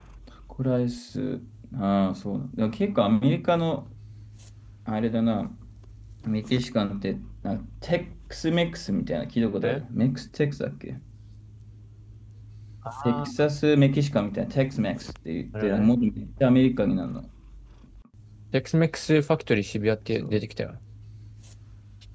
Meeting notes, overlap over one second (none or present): none